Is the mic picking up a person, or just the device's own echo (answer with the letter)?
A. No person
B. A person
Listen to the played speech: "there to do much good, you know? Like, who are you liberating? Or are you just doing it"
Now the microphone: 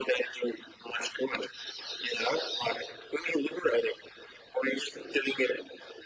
A